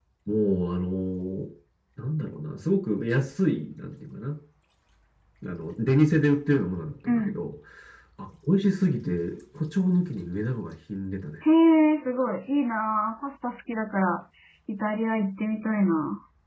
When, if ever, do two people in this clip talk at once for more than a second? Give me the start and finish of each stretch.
none

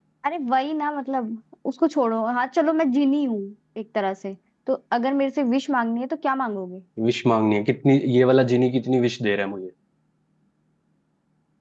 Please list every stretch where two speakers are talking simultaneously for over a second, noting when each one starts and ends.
none

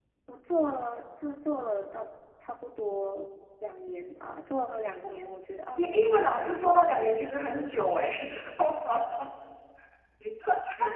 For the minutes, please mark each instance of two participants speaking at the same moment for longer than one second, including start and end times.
5.8-7.0

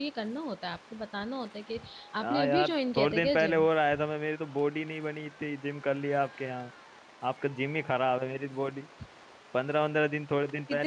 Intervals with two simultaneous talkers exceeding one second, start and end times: 2.2-3.6

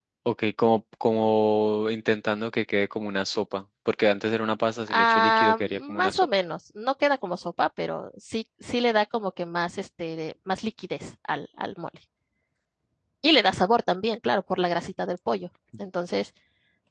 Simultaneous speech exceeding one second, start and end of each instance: 4.9-6.3

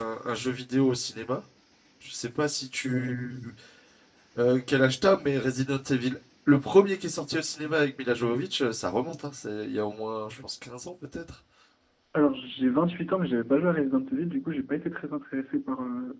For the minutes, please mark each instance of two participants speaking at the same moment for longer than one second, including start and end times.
none

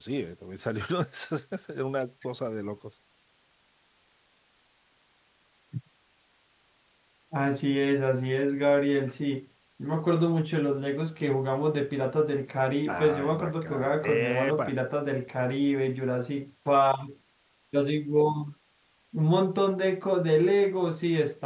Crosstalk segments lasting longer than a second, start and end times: 12.9-14.7

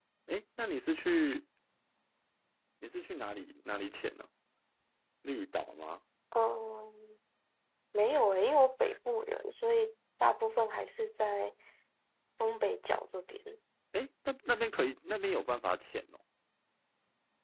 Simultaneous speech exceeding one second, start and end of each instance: none

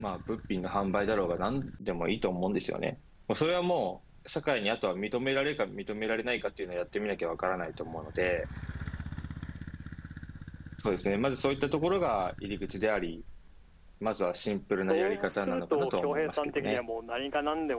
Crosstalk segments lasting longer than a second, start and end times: 14.9-16.8

